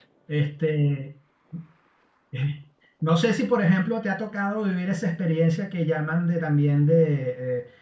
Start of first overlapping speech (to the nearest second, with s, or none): none